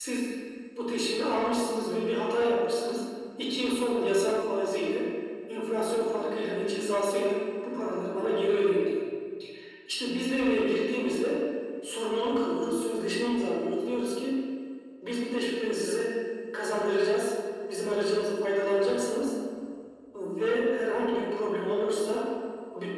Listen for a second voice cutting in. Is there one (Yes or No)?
No